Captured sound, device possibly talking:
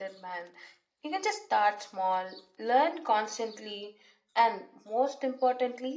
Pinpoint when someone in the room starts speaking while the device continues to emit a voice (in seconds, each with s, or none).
none